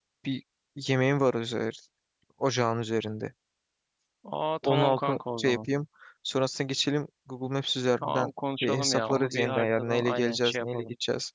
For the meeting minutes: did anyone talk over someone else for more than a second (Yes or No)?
Yes